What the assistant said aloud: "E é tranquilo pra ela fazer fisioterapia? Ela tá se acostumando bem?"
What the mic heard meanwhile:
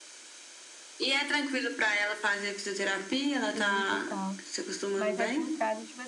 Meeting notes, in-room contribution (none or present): present